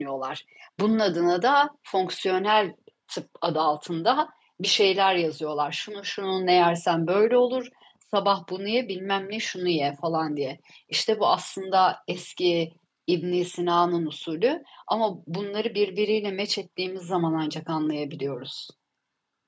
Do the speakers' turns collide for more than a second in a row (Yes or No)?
No